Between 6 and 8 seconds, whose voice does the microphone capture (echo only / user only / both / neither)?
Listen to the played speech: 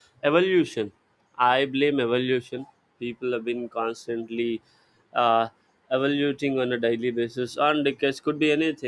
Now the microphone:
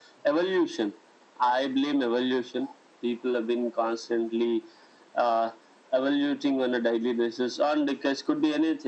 echo only